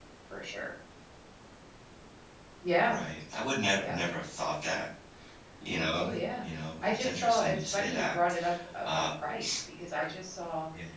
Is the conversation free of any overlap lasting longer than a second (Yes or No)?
No